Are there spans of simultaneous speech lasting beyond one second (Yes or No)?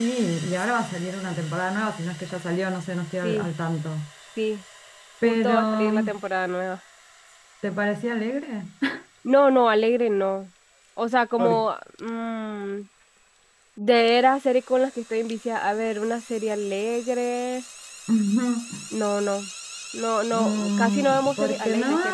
Yes